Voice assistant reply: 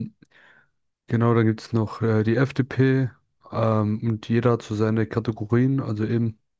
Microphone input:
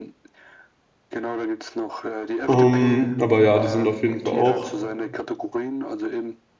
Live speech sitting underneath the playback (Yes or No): No